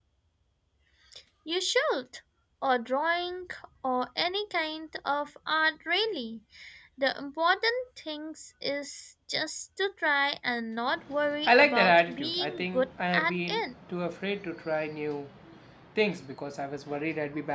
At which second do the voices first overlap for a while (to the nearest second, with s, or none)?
11 s